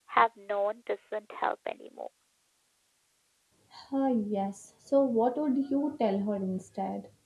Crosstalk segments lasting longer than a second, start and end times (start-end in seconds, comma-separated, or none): none